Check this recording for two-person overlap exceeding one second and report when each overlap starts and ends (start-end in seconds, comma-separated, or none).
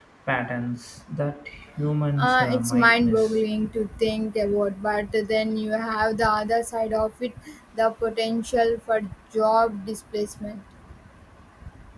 2.2-3.4